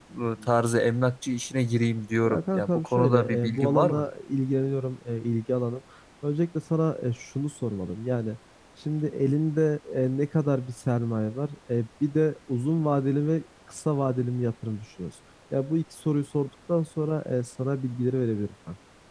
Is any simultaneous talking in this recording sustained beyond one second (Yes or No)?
Yes